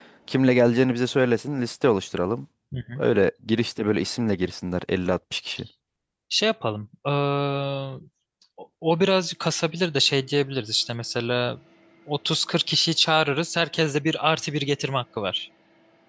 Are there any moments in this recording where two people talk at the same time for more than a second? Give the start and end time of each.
none

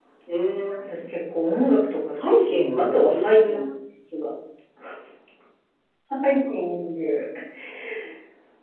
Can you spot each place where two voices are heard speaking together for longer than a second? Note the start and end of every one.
2.2-3.6

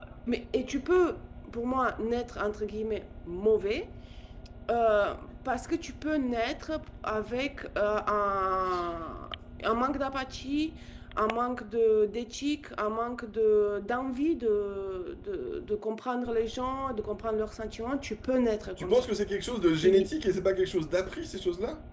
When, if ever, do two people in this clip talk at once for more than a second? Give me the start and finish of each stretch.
none

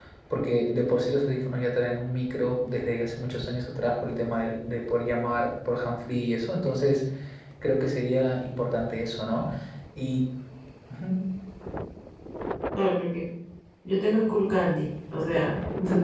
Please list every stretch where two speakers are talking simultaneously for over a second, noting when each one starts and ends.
none

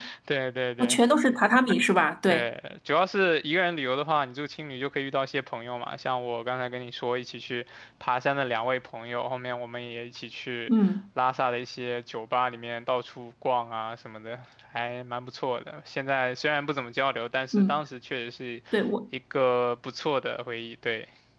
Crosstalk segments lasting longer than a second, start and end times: none

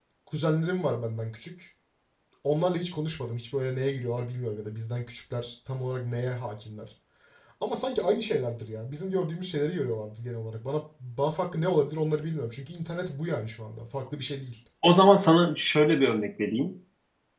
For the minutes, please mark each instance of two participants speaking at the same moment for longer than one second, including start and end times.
none

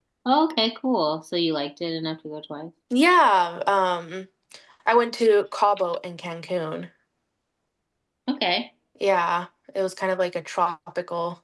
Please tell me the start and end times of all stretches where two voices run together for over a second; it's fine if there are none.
none

